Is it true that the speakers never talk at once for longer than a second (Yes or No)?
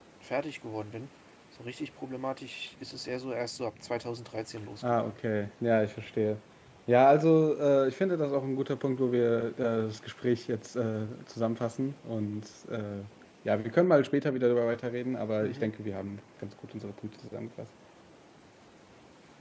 Yes